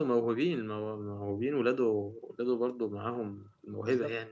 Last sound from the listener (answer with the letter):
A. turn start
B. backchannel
A